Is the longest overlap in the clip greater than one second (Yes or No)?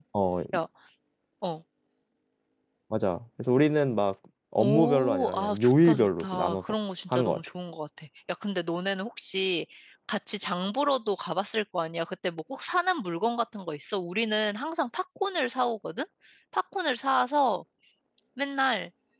Yes